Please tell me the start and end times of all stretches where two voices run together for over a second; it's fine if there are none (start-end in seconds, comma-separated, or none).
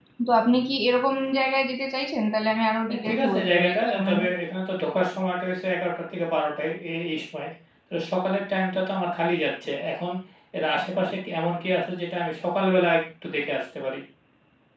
2.9-4.2